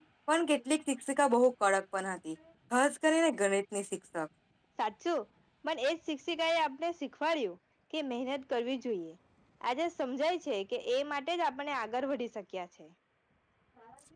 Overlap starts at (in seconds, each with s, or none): none